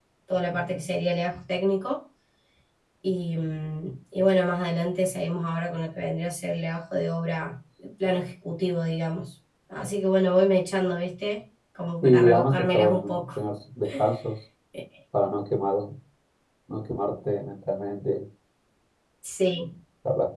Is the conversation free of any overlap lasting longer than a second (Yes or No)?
No